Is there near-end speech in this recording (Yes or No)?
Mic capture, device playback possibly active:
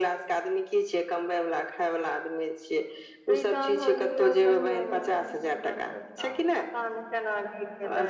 Yes